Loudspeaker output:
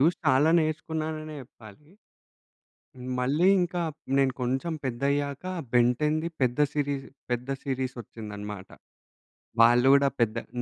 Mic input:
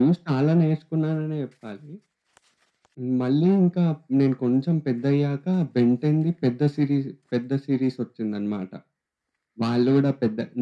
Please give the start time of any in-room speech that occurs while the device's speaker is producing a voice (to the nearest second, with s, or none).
none